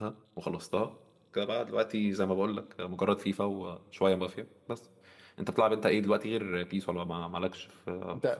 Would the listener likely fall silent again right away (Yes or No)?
No